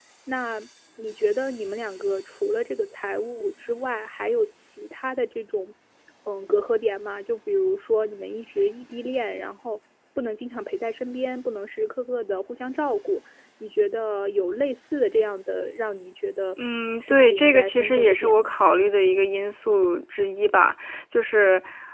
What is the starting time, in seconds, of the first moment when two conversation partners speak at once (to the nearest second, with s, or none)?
17 s